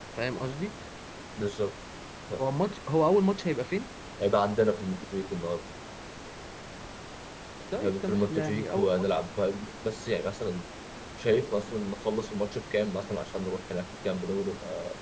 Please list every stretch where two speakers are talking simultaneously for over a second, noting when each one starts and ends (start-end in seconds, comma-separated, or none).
7.8-9.0